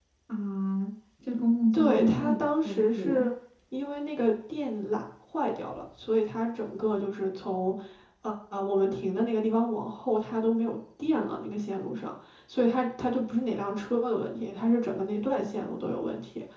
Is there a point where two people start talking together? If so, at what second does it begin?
1.7 s

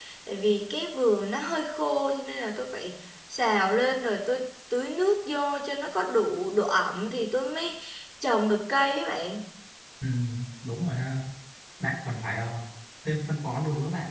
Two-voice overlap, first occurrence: none

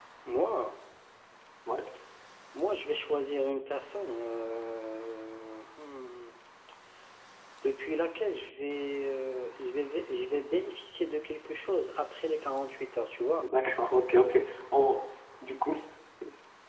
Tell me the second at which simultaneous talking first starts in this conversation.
none

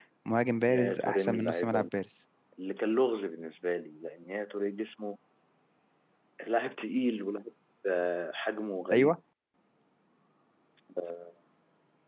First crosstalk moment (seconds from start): 0.7 s

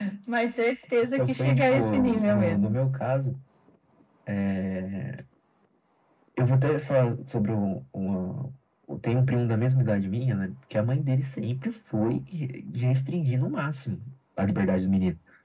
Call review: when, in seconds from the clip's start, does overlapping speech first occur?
1.2 s

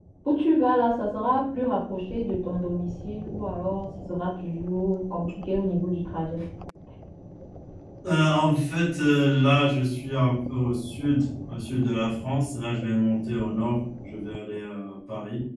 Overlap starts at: none

